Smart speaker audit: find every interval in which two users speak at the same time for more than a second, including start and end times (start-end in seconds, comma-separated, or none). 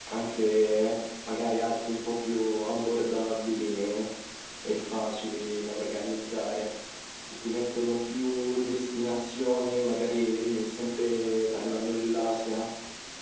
none